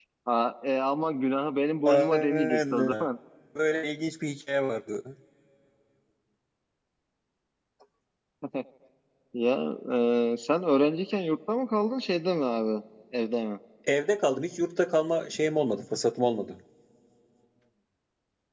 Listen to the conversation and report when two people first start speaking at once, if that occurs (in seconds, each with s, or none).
1.8 s